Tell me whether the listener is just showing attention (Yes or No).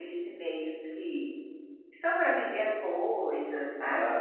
No